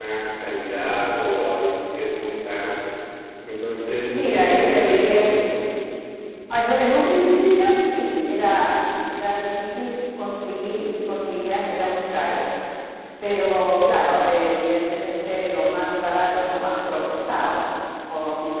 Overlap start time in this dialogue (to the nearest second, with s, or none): 4 s